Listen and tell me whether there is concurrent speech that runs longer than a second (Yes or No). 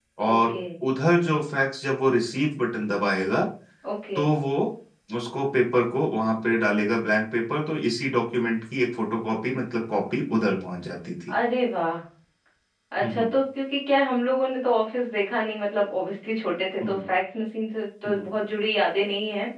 No